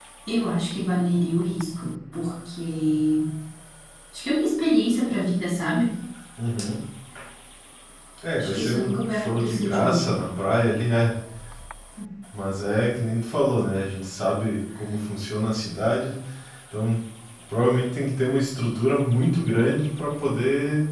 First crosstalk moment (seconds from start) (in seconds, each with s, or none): 8.4 s